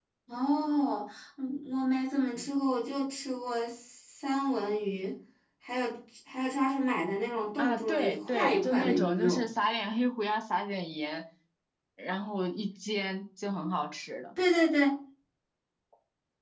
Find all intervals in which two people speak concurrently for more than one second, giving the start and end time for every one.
7.6-9.4

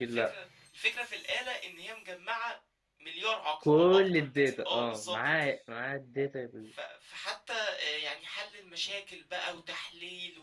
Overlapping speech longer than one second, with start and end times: 3.6-5.5

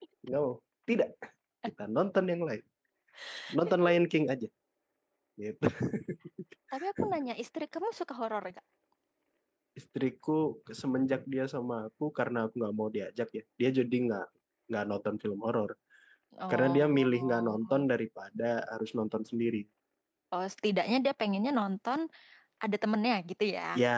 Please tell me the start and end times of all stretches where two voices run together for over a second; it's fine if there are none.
16.5-17.8

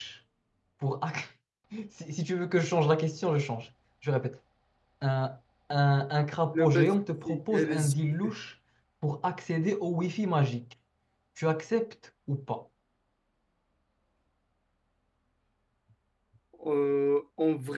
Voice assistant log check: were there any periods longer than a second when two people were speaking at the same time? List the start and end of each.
6.5-7.9

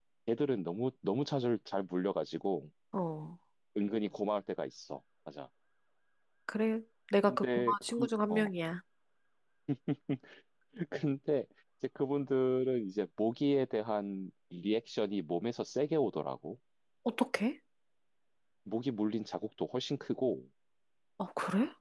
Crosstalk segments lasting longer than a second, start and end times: 7.3-8.5

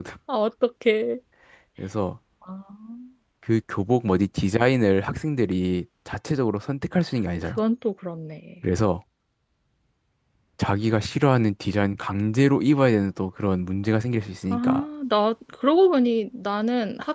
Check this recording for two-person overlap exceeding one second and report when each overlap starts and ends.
none

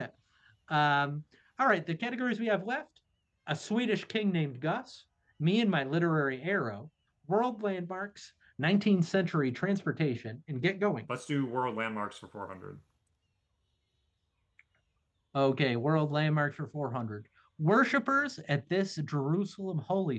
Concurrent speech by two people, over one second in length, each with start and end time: none

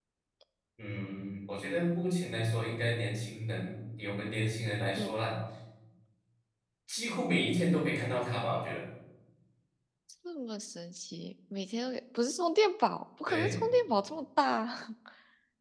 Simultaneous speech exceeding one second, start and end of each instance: none

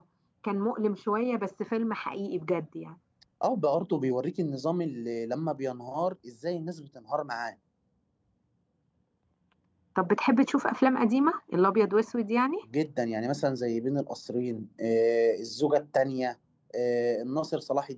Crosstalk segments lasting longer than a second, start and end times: none

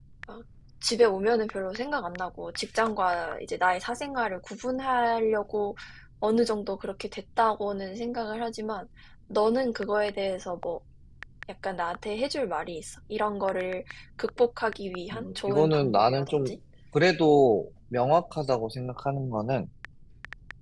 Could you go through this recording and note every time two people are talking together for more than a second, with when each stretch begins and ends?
15.1-16.5

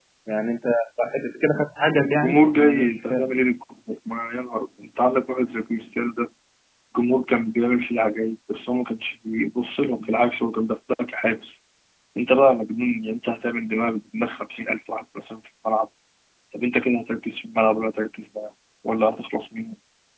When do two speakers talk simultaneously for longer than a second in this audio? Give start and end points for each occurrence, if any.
1.9-3.3

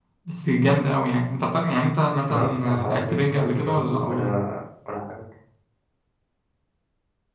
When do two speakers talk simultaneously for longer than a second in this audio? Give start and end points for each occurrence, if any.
2.3-4.3

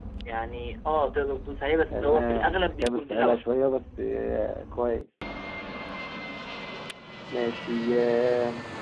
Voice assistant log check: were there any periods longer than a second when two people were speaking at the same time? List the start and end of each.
1.9-3.4

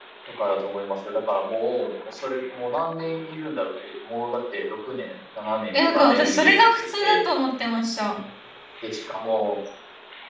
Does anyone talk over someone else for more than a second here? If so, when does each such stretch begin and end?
5.9-7.2

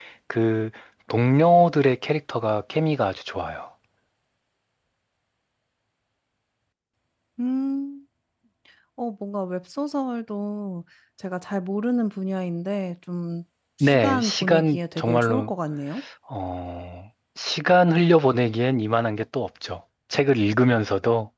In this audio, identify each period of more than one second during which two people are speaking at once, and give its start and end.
13.8-15.5

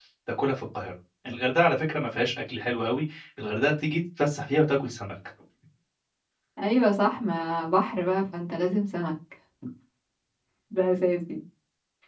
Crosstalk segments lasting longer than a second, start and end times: none

